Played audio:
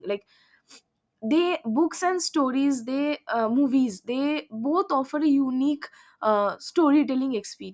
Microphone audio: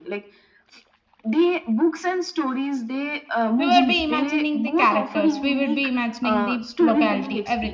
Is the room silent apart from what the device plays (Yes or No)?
No